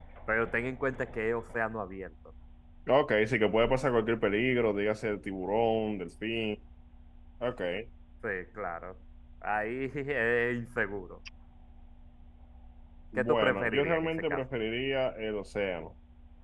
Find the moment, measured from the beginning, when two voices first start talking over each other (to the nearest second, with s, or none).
13 s